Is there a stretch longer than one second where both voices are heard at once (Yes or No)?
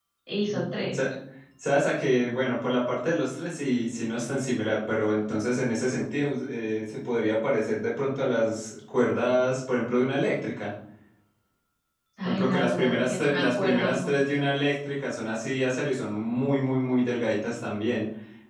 Yes